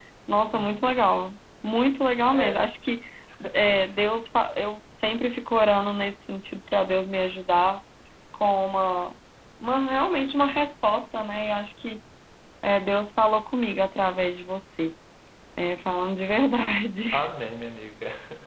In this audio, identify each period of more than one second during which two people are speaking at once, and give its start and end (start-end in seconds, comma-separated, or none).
none